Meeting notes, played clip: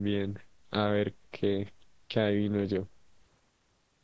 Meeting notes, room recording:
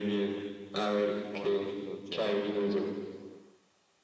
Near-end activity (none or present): present